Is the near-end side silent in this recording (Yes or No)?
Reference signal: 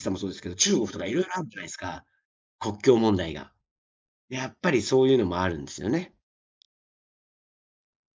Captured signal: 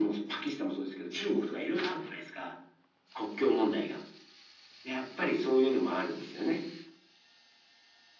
Yes